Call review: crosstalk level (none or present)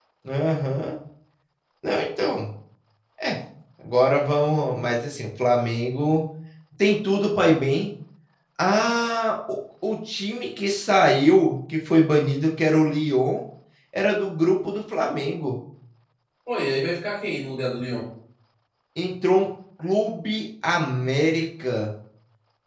none